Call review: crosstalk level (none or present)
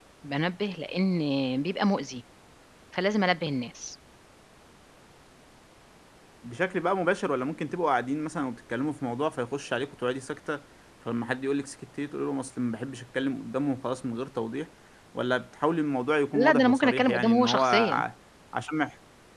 present